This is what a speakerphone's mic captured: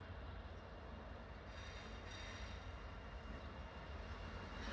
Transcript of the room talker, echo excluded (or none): none